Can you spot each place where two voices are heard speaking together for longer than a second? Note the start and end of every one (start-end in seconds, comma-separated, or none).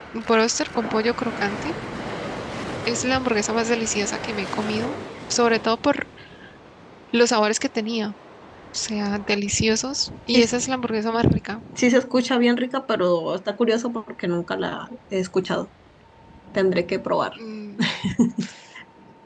none